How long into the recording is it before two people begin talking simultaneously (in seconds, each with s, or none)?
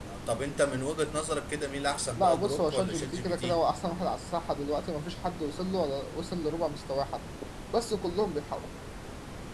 2.1 s